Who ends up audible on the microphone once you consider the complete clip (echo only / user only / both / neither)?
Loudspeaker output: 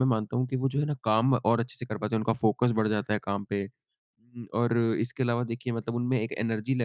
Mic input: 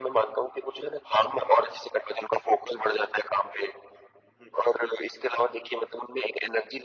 echo only